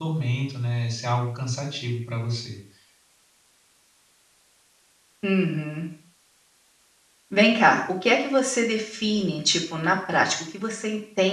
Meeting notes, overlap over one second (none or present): none